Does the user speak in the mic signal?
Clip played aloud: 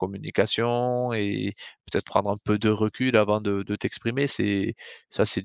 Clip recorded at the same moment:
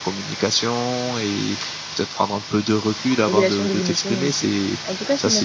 Yes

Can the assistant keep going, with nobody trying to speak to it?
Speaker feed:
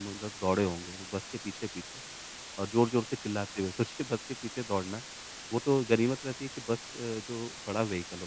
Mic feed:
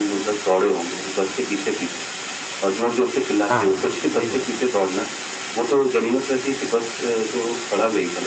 No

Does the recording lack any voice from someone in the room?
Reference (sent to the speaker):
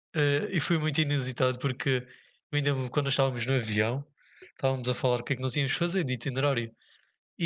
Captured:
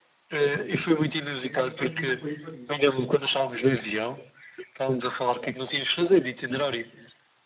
No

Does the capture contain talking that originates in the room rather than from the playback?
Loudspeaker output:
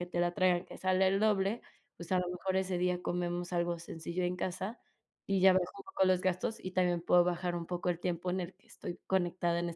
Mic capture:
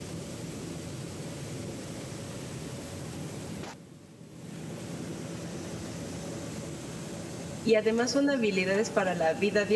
Yes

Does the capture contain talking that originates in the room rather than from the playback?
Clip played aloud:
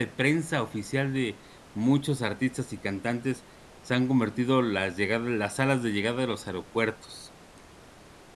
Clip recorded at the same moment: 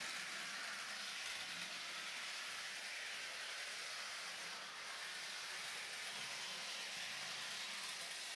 No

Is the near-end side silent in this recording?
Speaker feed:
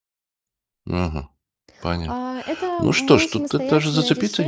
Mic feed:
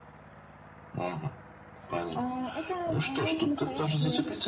Yes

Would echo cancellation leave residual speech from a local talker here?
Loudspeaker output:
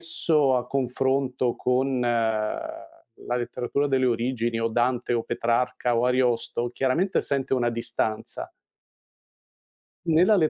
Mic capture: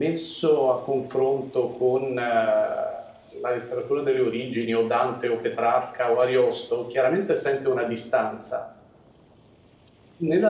No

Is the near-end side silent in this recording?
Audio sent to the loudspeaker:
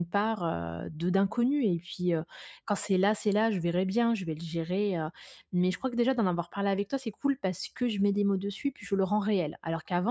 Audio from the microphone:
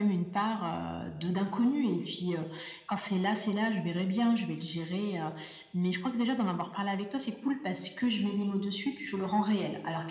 Yes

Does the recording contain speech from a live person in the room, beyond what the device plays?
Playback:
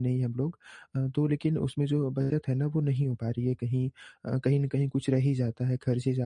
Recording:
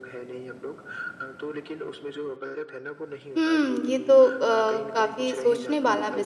Yes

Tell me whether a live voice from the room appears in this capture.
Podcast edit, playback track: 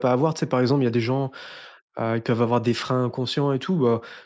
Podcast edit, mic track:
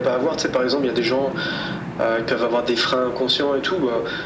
No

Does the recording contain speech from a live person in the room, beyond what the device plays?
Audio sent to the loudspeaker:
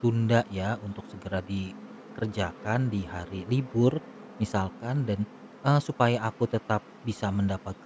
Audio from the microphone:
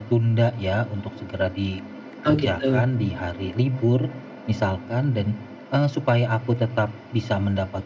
Yes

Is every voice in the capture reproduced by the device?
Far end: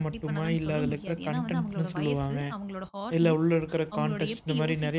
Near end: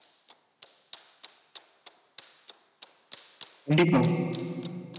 No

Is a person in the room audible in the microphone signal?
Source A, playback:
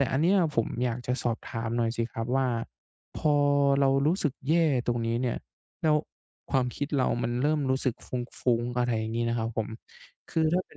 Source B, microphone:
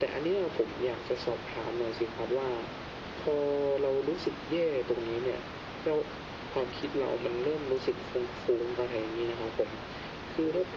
No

